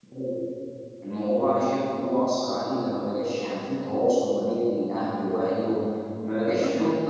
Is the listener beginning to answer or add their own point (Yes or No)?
Yes